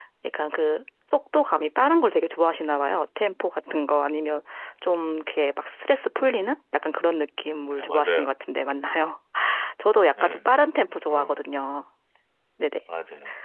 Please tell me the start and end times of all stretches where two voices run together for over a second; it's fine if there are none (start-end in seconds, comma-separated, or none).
none